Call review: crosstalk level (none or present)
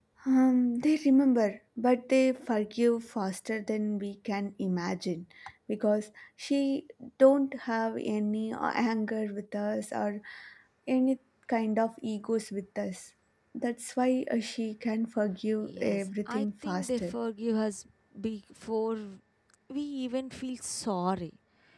present